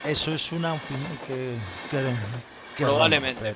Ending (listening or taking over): taking over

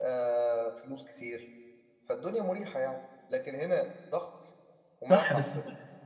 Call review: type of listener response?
taking over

